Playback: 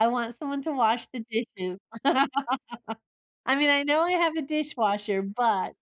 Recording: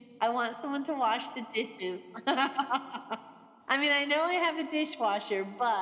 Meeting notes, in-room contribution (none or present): none